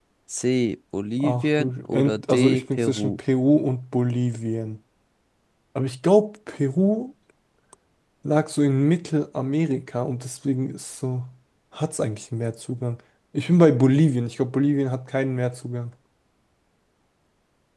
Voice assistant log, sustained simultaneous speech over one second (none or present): present